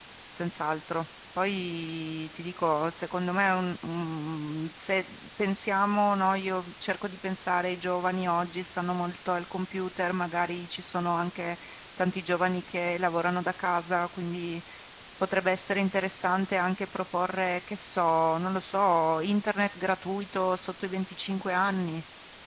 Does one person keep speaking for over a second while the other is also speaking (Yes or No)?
No